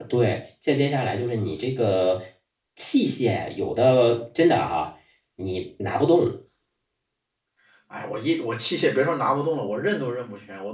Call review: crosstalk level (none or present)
none